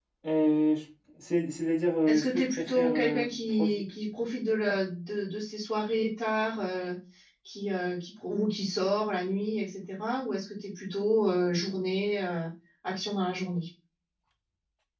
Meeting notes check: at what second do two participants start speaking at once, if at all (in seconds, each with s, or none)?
2.1 s